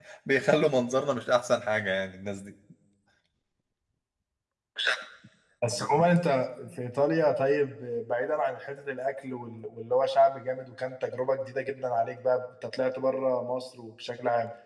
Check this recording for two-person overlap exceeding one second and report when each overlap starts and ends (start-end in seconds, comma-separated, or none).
none